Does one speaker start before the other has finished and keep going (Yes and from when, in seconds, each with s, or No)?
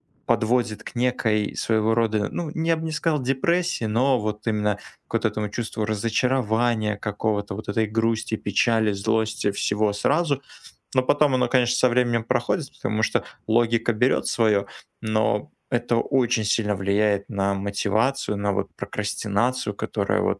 No